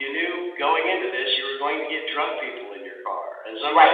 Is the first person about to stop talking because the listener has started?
Yes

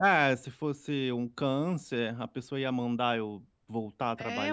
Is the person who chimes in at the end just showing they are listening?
No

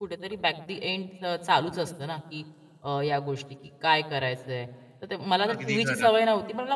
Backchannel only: Yes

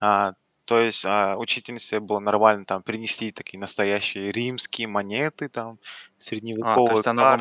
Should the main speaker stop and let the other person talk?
Yes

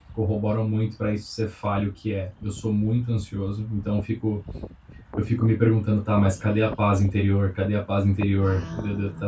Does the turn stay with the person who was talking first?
Yes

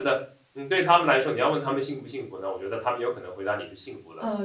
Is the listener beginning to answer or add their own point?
Yes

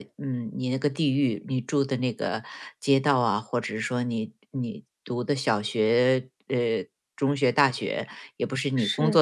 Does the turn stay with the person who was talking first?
Yes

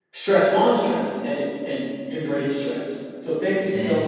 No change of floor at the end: Yes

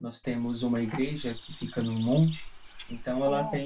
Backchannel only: Yes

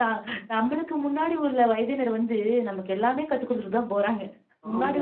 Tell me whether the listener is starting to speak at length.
No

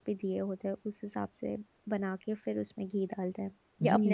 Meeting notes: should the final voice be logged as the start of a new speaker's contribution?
Yes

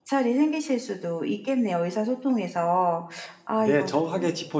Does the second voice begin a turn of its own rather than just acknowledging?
Yes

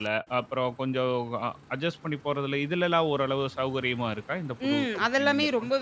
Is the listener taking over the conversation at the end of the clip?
Yes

